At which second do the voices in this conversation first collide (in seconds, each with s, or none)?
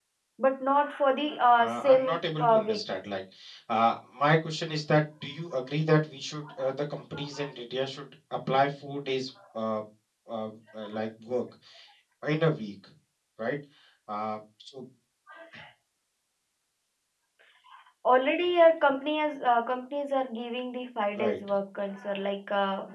1.6 s